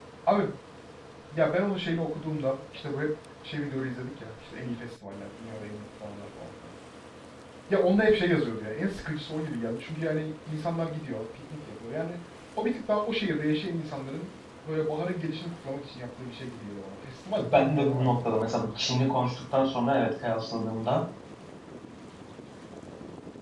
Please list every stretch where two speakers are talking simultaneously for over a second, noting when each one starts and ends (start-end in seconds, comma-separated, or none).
17.6-18.9